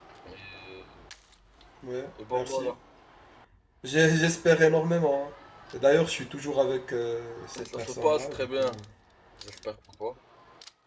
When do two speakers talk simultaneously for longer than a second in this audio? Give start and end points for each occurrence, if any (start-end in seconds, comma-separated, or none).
7.6-8.8